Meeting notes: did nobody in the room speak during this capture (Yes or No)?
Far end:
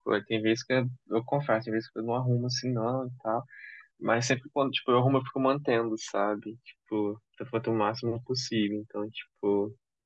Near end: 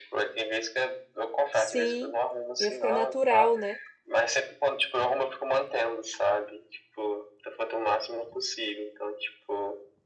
No